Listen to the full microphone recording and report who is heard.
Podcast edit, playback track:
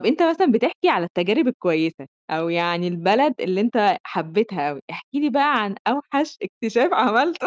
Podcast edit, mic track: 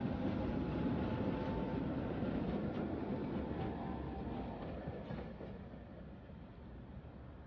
neither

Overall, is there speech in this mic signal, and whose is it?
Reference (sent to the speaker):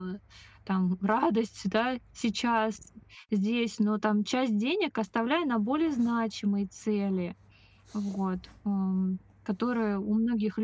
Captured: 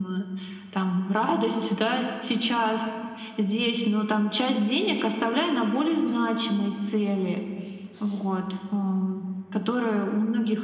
echo only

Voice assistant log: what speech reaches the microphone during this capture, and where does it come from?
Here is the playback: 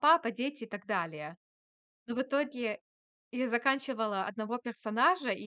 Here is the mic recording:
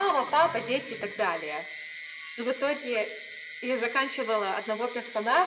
echo only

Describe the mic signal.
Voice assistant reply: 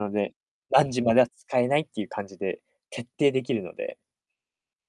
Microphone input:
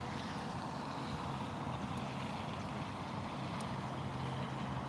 neither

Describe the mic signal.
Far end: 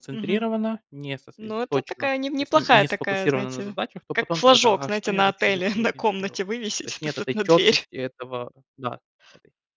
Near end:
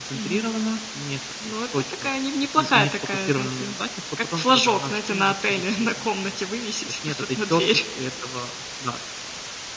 echo only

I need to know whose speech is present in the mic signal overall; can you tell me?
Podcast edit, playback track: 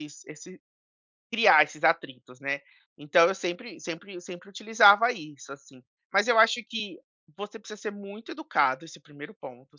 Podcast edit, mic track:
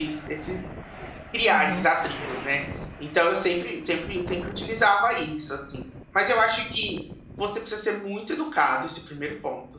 both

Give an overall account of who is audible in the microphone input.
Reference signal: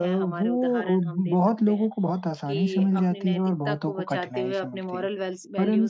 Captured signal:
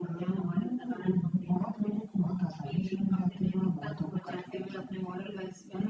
echo only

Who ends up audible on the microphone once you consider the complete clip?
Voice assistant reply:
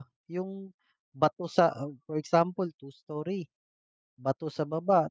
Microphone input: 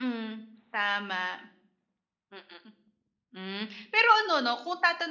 user only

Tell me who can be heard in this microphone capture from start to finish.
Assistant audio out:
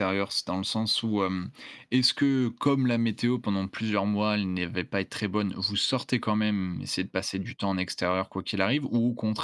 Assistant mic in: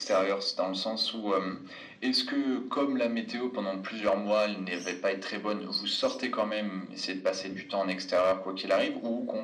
echo only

